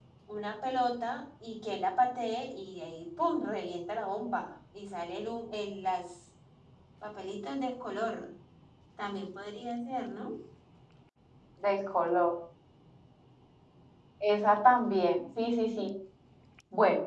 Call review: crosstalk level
none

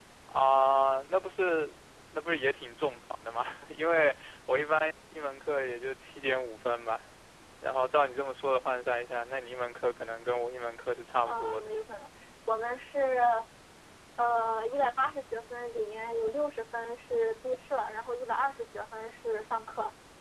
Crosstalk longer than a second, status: none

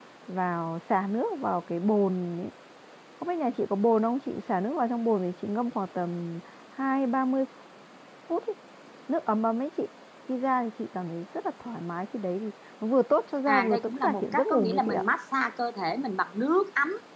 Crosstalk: present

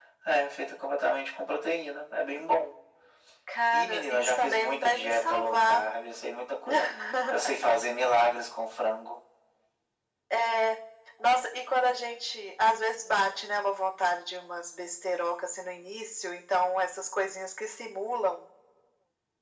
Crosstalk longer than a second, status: present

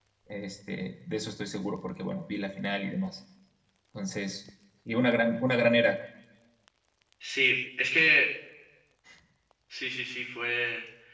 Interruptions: none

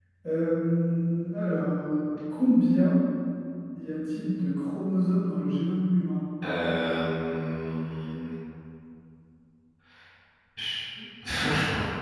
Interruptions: none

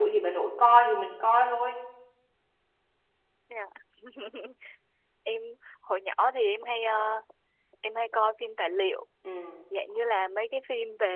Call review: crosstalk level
none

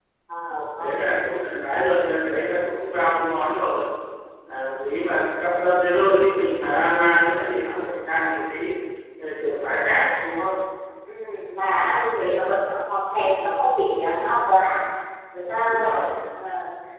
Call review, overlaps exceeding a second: none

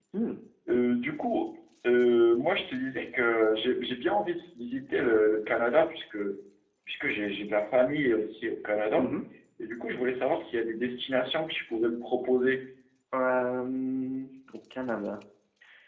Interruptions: none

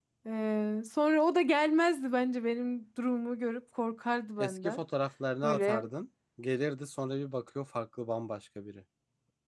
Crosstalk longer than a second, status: none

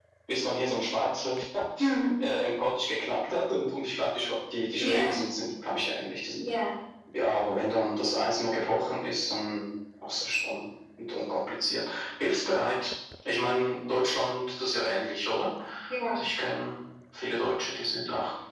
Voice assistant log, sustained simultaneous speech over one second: none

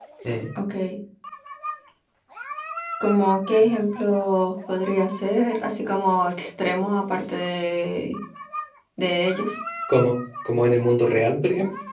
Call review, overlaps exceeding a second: none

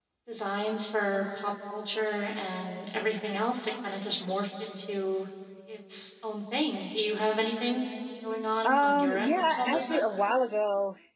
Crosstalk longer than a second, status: present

